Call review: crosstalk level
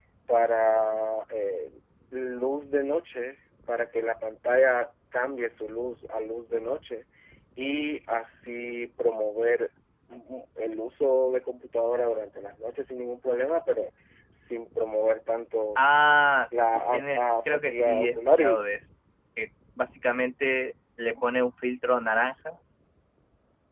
present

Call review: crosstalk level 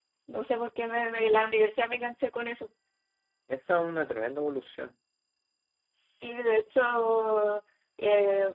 none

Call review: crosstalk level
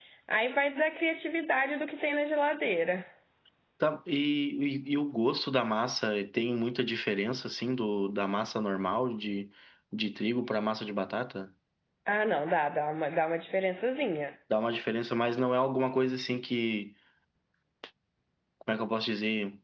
none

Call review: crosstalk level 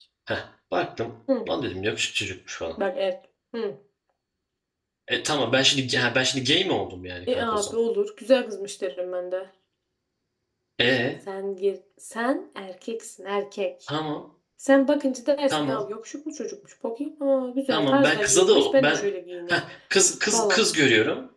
present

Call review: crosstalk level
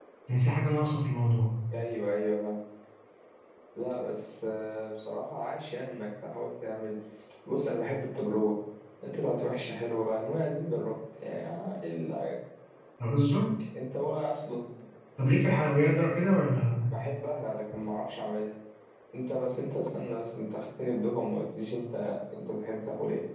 none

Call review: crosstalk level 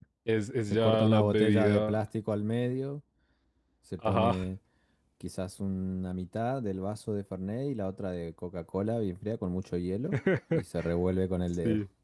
present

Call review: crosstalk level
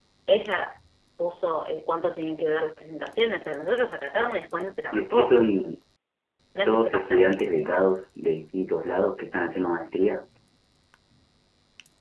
present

